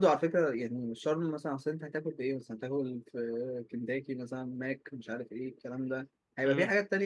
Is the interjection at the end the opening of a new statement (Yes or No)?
No